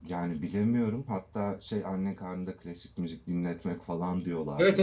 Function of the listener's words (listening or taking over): taking over